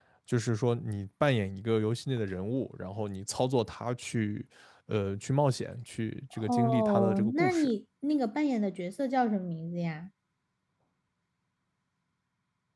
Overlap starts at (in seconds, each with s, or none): 6.3 s